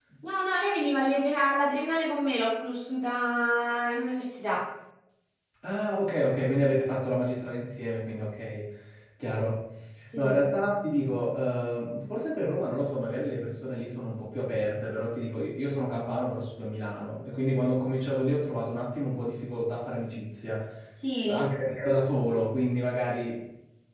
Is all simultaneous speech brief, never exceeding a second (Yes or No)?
Yes